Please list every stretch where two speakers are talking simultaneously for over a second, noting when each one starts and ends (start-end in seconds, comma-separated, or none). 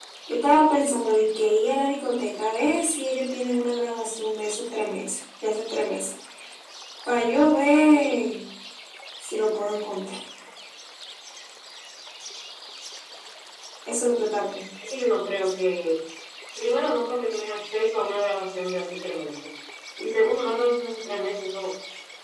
none